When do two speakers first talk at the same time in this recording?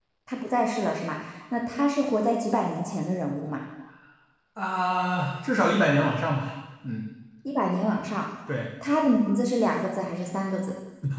none

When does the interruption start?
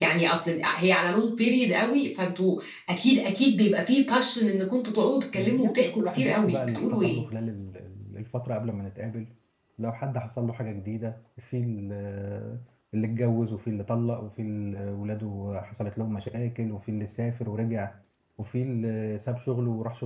5.3 s

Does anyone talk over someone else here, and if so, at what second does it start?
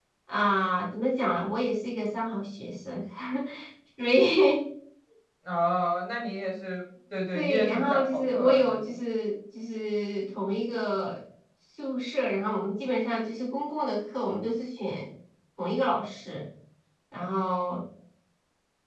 7.3 s

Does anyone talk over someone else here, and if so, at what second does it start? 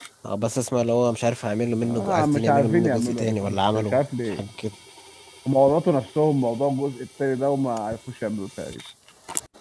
1.8 s

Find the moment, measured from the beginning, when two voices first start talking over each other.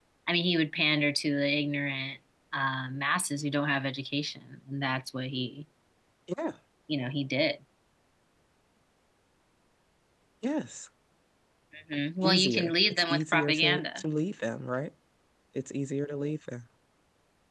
12.2 s

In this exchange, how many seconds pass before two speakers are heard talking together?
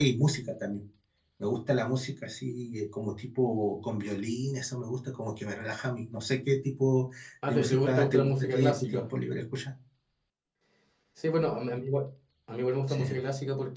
7.5 s

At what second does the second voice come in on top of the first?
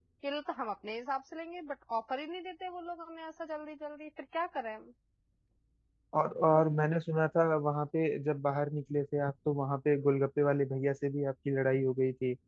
none

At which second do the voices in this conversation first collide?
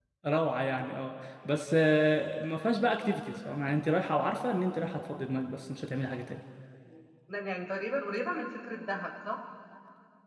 none

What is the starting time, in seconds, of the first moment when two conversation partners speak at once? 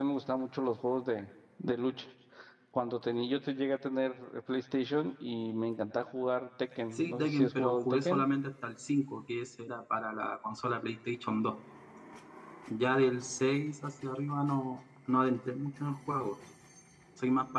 6.9 s

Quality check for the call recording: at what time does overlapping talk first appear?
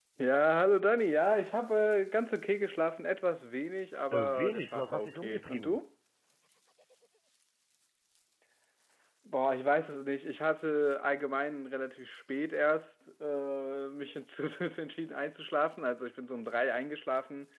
4.1 s

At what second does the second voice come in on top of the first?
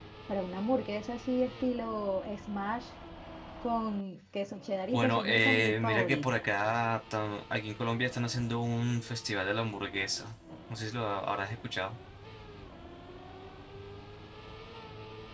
4.9 s

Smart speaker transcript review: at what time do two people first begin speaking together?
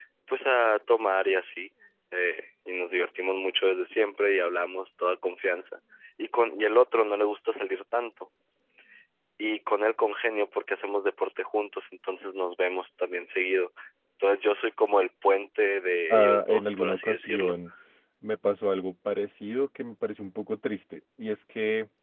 16.1 s

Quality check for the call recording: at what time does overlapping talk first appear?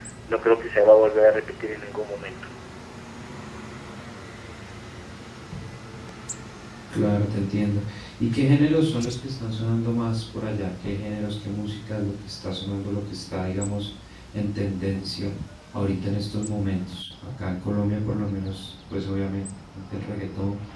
none

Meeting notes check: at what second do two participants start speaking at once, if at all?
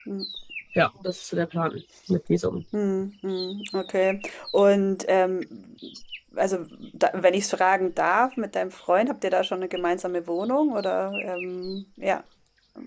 none

